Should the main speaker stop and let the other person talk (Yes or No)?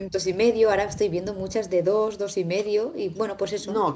Yes